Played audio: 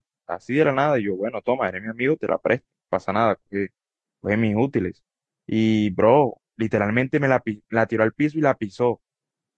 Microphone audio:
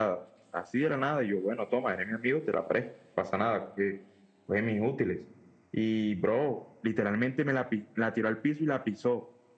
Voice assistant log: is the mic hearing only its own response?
Yes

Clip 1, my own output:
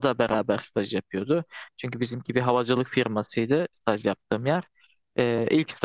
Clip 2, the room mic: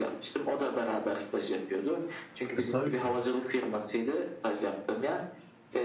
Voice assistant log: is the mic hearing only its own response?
No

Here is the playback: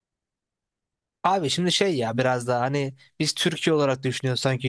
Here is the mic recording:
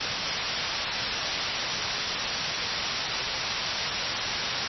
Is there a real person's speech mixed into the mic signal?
No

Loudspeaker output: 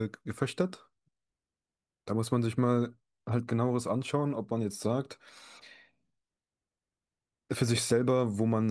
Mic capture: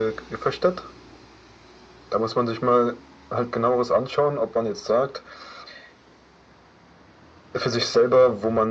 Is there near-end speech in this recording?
No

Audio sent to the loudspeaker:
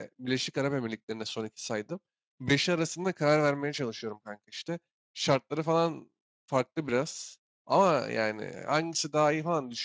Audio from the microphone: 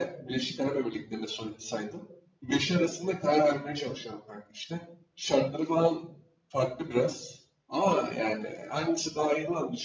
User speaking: No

